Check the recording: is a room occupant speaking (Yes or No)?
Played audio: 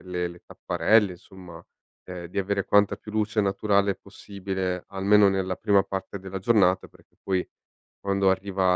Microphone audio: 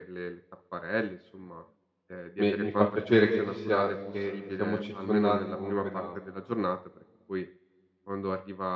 Yes